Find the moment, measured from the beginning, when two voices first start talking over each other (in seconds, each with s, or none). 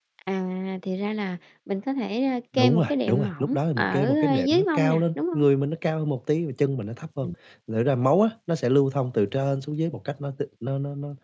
2.5 s